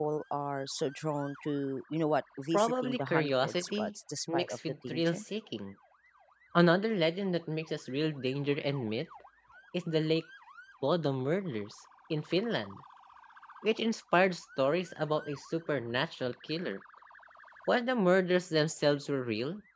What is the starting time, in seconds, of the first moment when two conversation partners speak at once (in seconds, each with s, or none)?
2.5 s